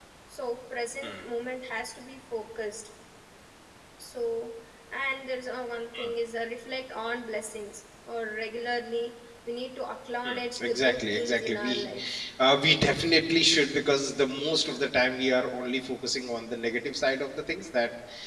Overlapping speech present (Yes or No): Yes